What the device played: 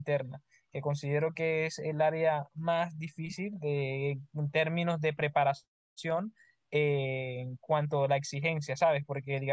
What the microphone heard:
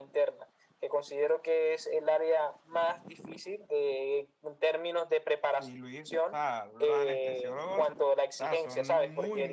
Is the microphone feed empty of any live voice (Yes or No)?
No